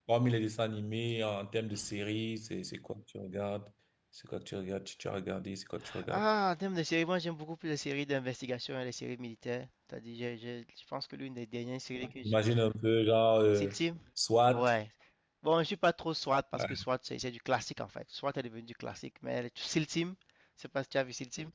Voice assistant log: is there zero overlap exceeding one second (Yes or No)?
Yes